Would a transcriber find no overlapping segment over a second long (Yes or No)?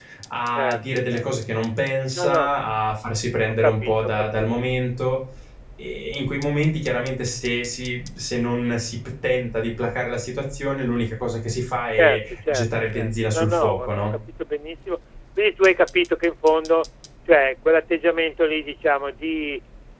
No